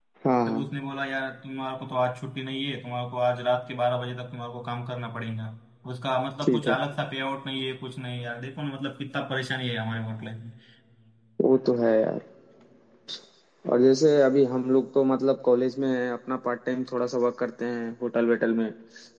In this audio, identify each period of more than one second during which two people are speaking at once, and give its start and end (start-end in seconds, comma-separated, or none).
none